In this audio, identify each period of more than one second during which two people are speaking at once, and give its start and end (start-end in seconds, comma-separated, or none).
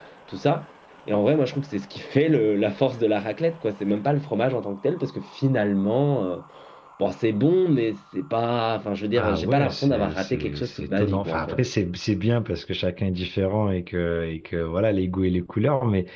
9.2-11.6